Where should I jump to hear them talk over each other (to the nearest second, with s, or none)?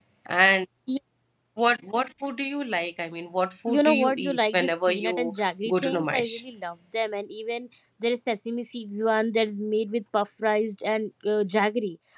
4 s